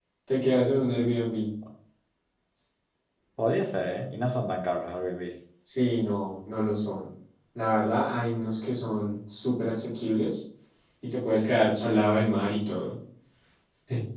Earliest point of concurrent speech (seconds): none

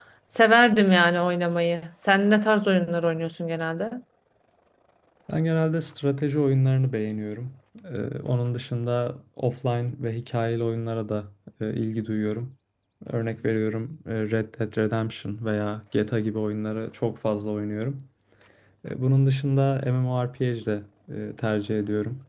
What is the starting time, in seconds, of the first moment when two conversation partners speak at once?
none

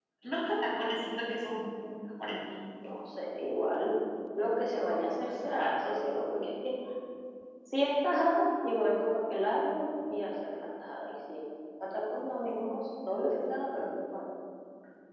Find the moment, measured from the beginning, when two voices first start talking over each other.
none

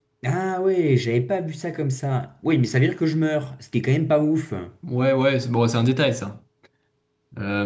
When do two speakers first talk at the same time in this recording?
none

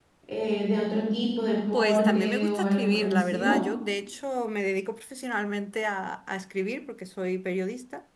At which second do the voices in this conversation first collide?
1.7 s

